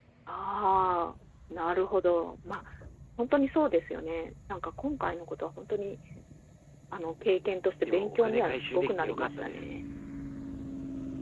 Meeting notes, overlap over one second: present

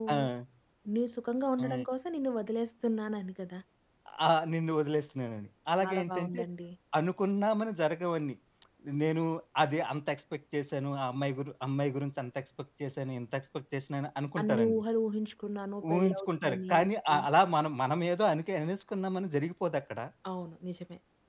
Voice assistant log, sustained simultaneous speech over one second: present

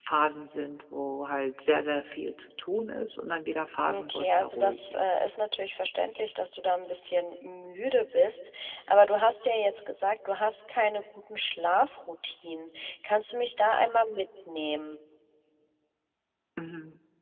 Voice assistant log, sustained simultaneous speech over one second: present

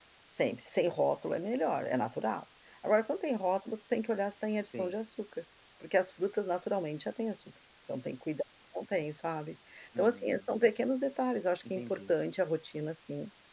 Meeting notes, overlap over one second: none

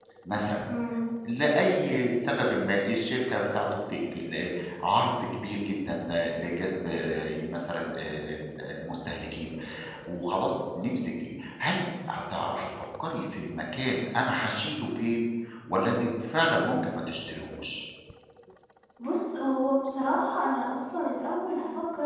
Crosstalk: none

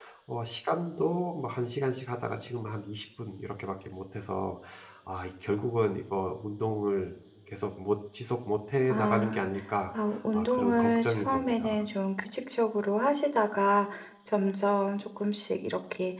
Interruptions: present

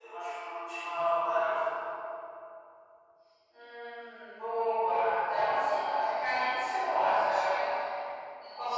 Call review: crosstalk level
none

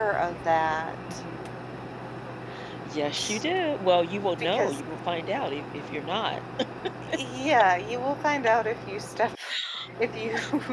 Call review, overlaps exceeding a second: none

